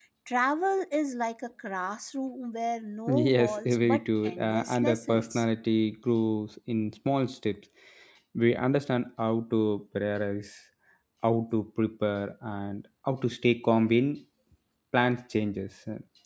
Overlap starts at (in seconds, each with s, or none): 3.1 s